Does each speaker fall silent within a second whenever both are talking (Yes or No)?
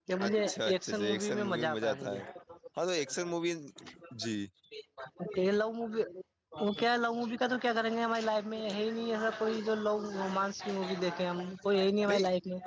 No